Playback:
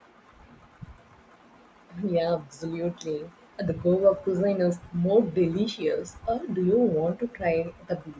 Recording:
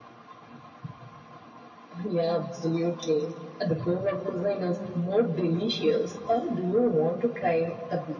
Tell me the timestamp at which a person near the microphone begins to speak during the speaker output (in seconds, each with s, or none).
none